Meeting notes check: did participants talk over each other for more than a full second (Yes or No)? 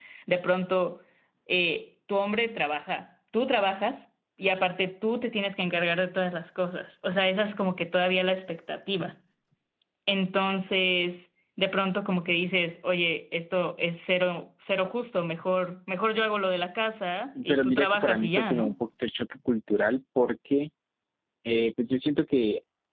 Yes